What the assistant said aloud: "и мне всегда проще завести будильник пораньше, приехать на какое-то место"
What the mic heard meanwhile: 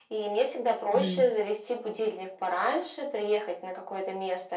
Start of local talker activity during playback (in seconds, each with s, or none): 0.9 s